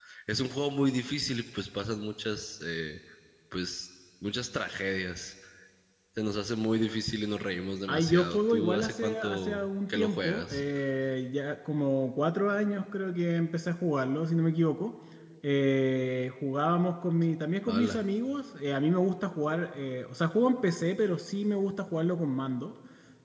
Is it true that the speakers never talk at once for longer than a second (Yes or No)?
No